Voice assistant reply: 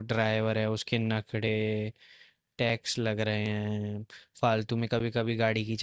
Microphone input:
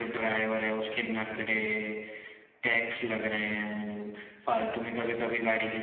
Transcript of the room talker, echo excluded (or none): none